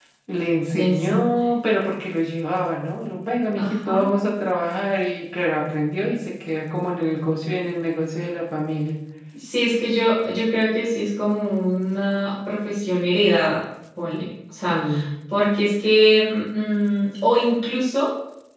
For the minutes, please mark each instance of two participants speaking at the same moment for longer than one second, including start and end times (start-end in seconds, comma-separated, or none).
none